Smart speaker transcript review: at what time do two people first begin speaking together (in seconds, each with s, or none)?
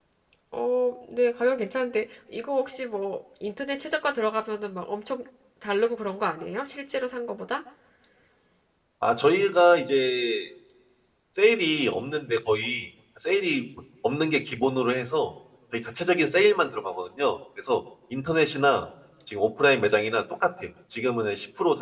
none